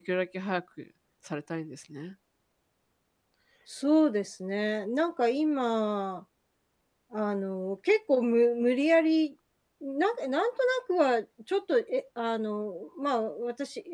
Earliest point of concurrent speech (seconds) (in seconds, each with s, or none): none